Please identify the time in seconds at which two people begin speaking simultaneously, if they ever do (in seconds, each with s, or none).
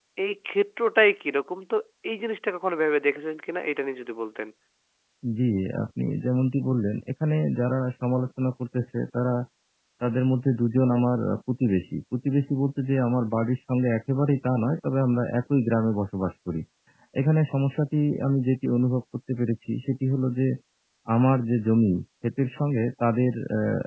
none